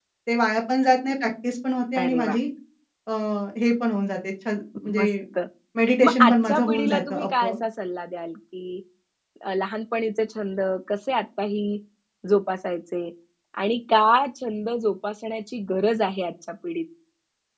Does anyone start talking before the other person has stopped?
Yes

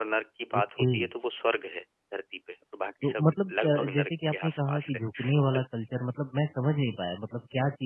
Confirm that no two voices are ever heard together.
No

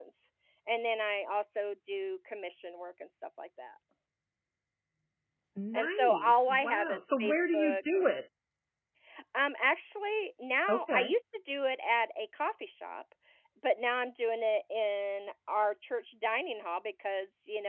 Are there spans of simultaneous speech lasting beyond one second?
Yes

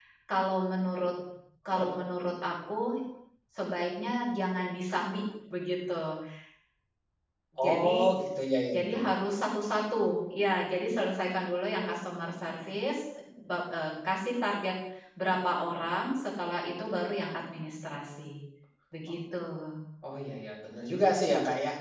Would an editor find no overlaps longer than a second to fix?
Yes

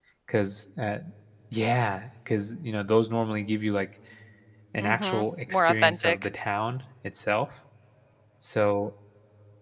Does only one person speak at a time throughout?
No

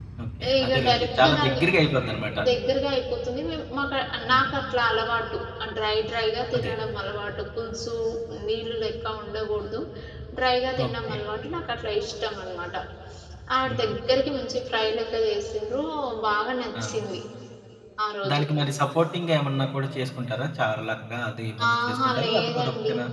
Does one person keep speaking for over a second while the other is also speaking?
Yes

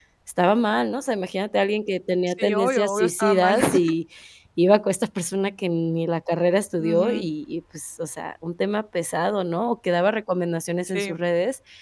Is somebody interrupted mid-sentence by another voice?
Yes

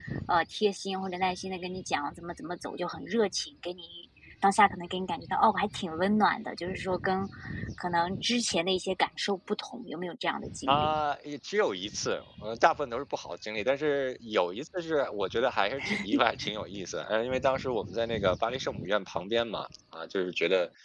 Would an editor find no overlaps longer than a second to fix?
Yes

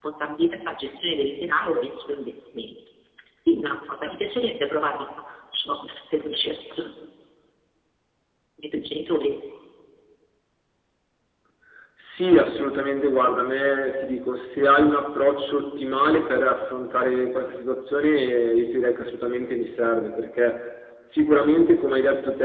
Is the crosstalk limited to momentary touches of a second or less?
Yes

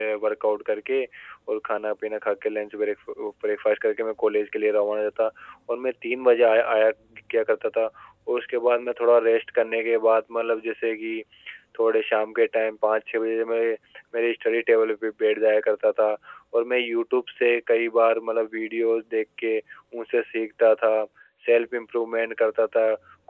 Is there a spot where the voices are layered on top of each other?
No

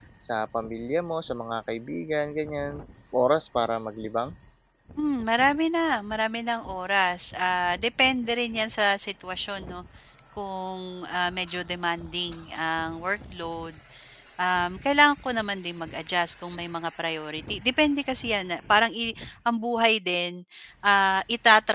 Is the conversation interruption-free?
Yes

